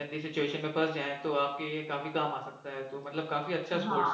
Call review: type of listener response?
taking over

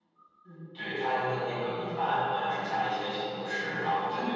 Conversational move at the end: listening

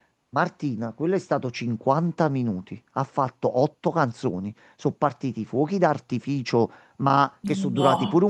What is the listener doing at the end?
listening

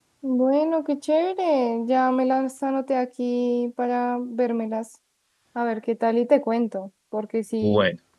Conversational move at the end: listening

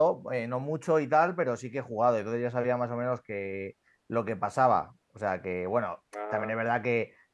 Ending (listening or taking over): listening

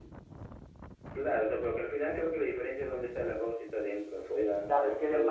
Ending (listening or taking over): taking over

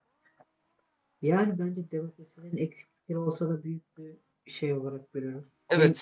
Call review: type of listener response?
taking over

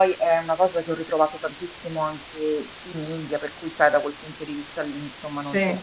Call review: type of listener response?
listening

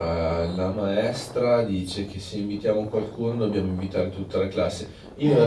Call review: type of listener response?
listening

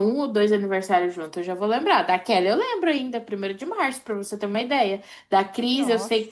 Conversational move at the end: listening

